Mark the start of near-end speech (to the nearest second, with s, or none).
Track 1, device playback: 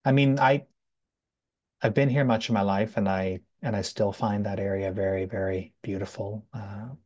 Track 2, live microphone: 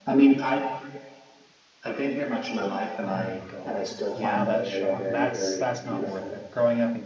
3 s